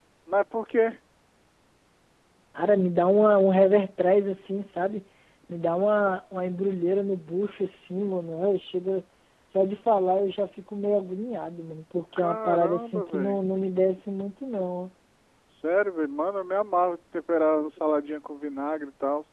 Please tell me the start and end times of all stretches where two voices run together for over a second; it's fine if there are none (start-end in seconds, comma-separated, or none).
12.2-13.4